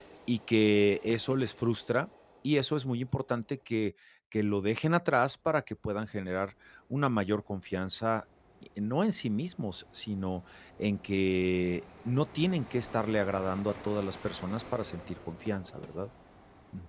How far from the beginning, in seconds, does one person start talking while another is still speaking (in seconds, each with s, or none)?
none